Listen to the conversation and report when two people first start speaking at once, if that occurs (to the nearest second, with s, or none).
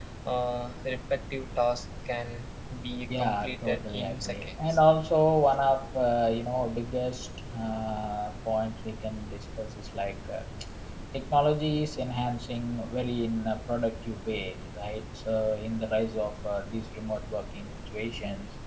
3 s